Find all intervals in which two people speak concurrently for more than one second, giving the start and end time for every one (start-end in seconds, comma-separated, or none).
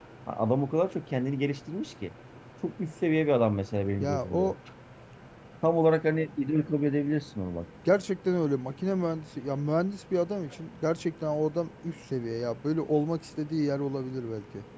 none